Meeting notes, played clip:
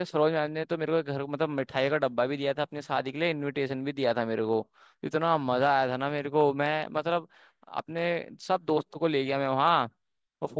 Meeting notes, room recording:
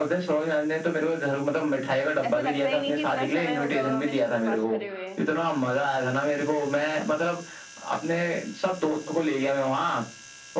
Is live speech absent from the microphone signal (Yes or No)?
No